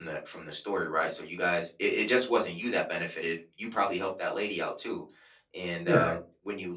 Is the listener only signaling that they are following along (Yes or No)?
Yes